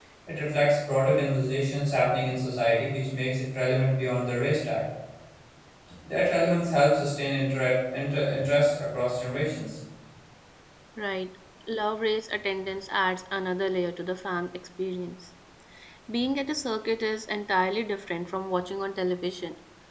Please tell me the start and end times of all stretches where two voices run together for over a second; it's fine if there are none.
none

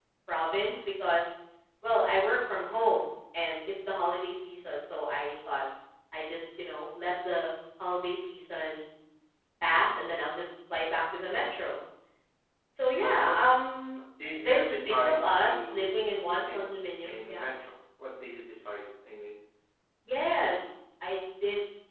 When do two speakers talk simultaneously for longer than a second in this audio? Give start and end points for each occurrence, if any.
14.4-16.0

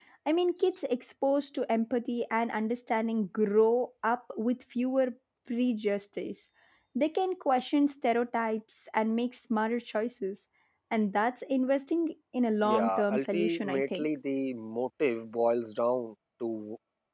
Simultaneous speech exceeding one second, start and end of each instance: 12.6-14.1

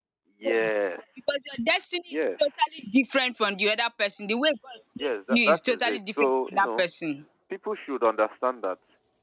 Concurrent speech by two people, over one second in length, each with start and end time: 5.0-6.8

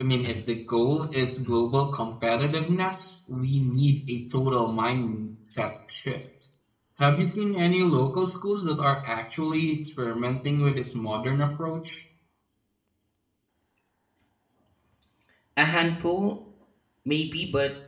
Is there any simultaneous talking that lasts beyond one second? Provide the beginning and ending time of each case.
none

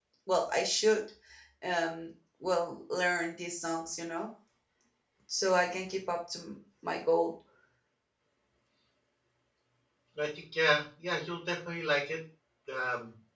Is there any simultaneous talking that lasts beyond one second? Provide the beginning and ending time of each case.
none

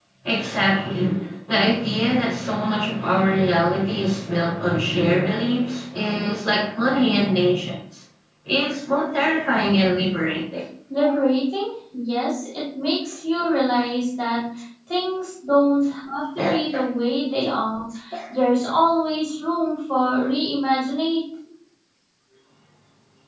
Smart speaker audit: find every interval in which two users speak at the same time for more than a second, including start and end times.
none

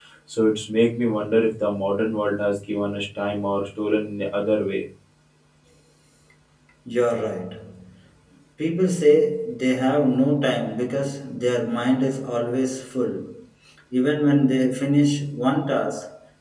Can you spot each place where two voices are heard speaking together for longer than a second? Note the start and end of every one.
none

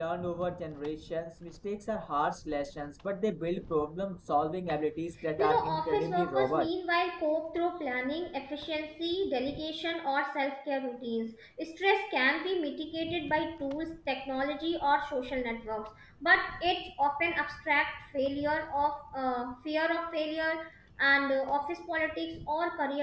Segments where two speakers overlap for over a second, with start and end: 5.4-6.7

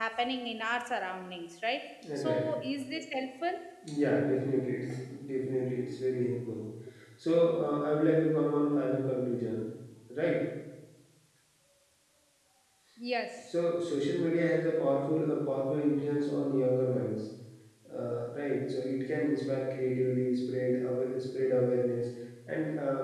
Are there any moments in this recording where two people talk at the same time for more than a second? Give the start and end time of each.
none

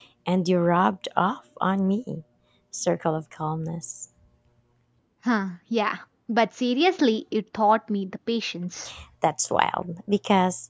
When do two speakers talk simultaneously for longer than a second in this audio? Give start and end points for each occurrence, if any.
none

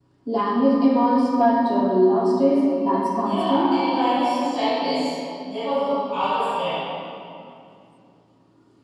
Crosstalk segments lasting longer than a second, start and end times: none

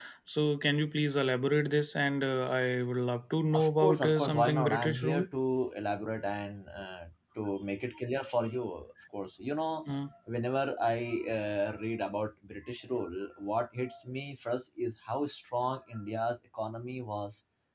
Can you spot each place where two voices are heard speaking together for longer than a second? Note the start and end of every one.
3.5-5.3

